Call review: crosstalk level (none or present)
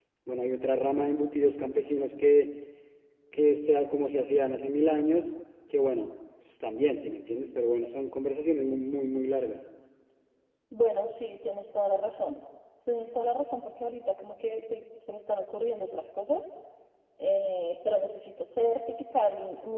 none